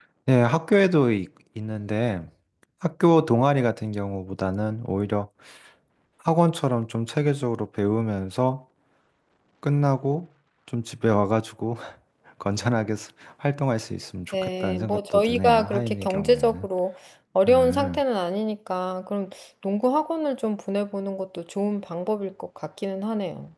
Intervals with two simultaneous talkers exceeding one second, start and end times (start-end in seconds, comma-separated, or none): 14.3-16.7